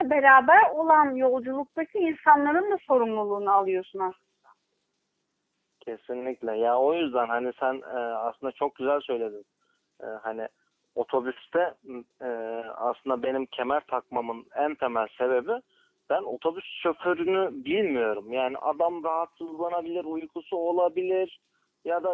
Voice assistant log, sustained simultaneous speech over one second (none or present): none